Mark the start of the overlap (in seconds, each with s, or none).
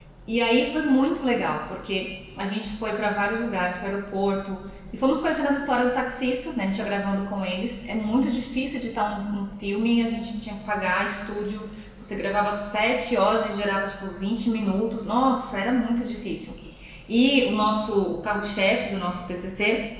none